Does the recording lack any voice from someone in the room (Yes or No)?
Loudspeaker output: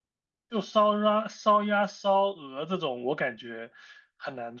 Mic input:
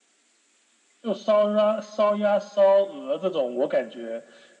Yes